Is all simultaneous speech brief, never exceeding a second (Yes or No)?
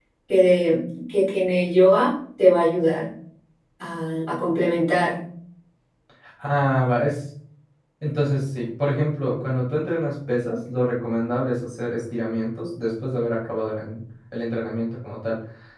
Yes